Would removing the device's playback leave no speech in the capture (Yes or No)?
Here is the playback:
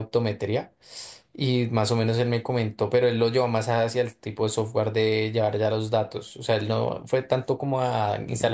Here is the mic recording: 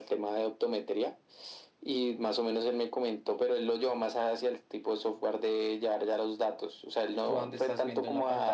No